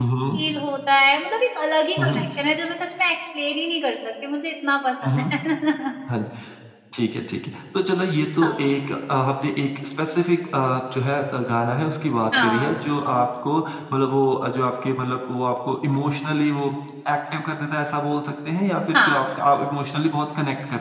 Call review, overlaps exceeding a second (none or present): none